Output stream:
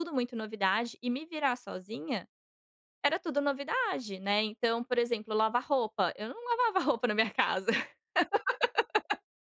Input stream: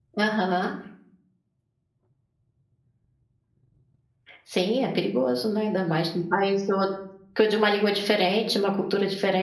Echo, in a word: none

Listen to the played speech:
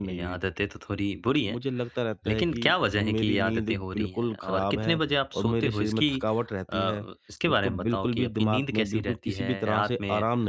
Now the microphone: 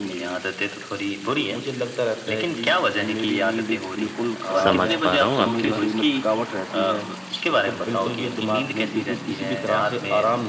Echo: present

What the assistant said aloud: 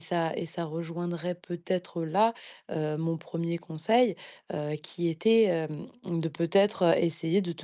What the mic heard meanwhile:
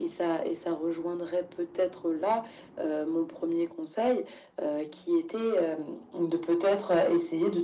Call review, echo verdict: present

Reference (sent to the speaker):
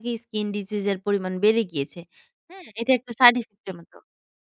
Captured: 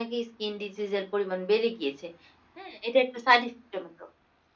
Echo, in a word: present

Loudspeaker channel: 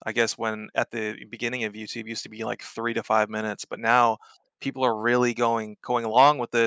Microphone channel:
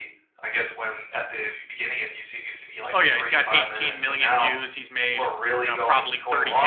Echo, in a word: present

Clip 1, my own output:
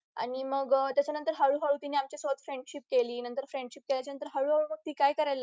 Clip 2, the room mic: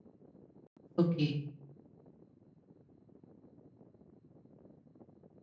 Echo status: none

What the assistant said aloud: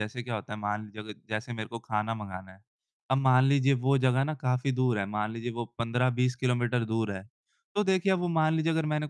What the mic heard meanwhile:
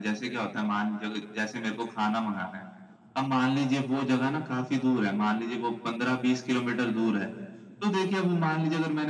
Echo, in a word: present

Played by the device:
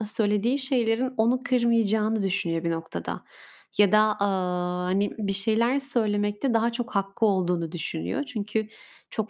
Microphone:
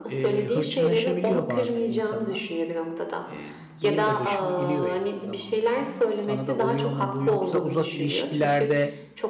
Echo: present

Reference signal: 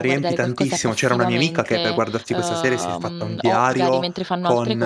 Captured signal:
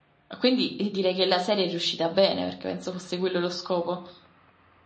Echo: none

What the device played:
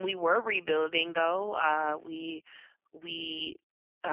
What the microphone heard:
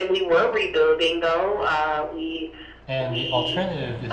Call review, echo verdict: present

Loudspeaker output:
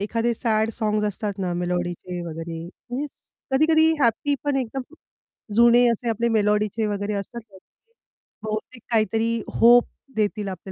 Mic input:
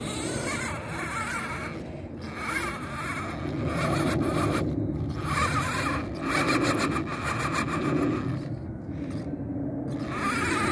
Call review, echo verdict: none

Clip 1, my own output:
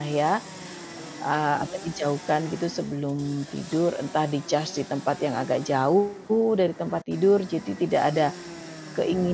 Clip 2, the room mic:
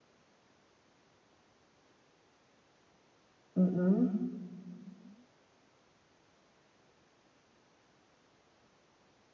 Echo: none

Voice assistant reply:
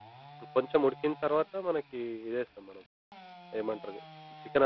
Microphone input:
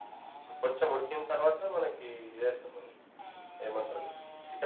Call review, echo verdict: present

